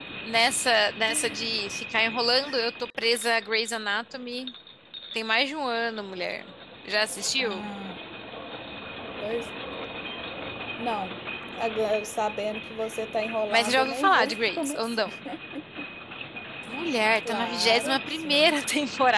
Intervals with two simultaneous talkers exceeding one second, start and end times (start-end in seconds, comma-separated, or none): 13.5-15.0, 17.3-18.5